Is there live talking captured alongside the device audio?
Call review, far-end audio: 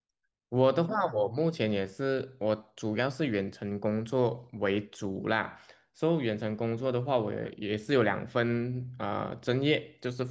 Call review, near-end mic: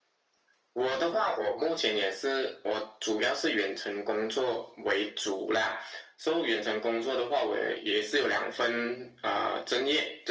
No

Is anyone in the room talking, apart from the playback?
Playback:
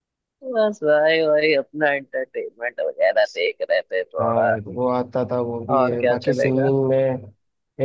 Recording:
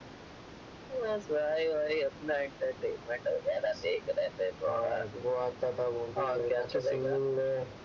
No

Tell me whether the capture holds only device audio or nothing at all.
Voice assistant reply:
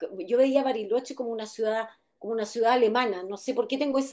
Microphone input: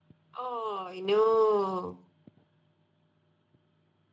No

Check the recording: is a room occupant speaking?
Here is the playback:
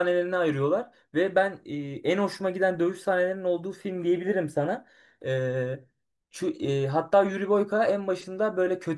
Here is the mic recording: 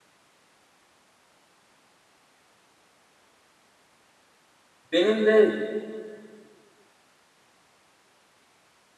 Yes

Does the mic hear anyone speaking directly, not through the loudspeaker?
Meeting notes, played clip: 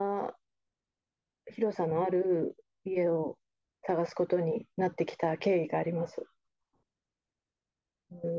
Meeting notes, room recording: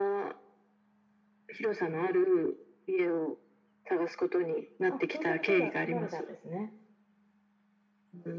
Yes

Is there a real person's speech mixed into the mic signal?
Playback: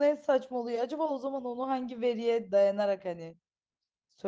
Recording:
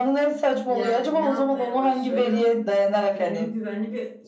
Yes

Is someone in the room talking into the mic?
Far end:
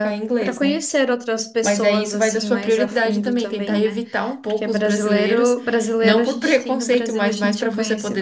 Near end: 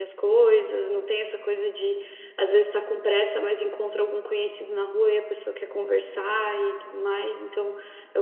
Yes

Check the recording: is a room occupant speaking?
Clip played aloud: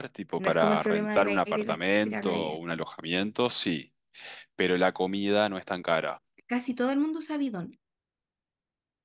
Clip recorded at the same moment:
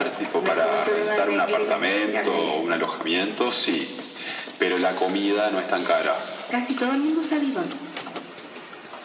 No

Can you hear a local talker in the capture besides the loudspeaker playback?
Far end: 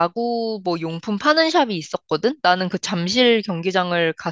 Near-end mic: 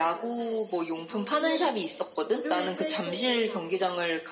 Yes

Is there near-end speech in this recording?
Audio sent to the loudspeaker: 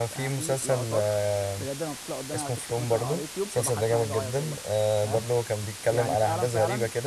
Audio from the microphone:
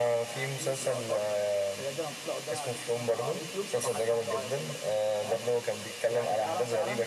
No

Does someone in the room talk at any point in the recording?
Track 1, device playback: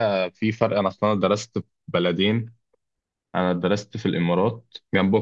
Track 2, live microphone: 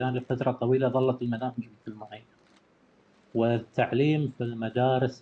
Yes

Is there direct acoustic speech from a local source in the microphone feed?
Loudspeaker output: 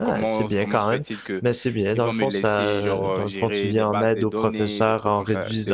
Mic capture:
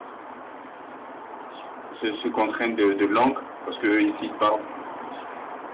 Yes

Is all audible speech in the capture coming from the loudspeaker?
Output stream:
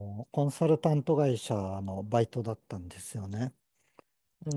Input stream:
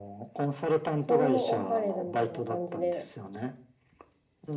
No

